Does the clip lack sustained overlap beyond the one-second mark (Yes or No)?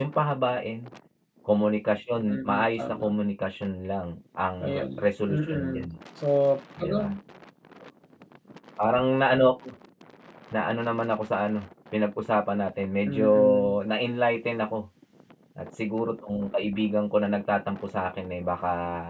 No